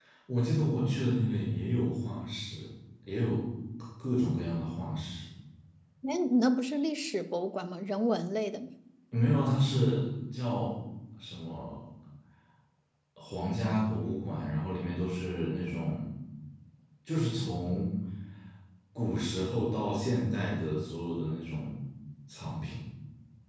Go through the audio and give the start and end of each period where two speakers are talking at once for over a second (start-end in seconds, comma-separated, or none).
none